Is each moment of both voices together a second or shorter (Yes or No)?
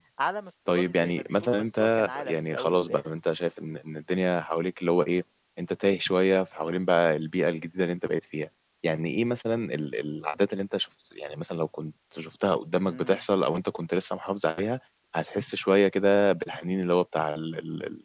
No